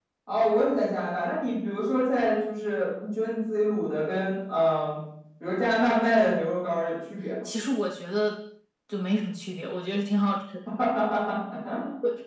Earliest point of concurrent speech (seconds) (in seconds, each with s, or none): none